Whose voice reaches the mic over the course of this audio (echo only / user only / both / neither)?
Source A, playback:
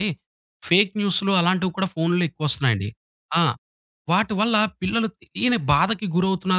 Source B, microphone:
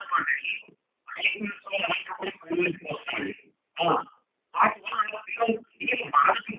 echo only